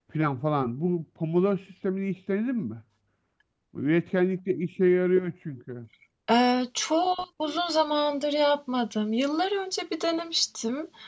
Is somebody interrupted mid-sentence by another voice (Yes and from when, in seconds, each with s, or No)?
No